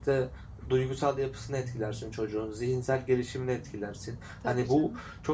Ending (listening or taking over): listening